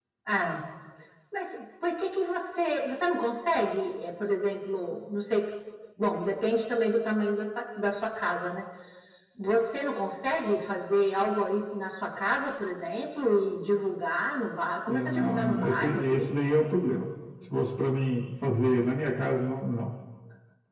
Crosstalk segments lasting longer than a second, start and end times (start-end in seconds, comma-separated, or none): 14.9-16.3